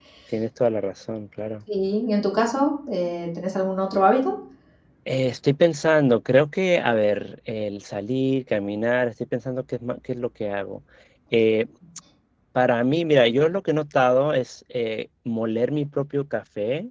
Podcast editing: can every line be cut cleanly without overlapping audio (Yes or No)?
Yes